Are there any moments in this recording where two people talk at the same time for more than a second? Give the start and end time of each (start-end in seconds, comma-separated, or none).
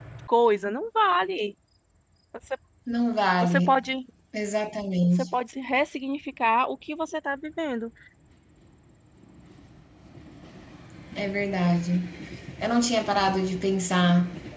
none